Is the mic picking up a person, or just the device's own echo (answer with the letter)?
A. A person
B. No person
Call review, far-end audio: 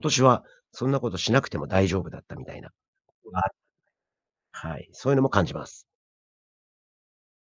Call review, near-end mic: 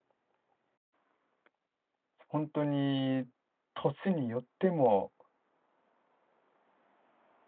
A